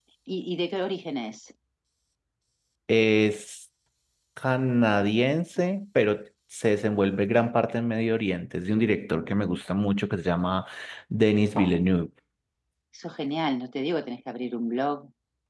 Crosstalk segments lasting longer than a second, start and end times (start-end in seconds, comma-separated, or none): none